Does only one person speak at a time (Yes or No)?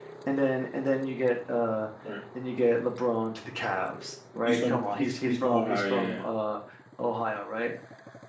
No